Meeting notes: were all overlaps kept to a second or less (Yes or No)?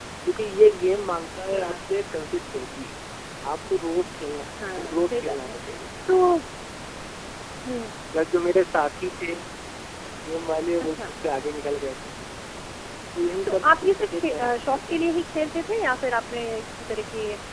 No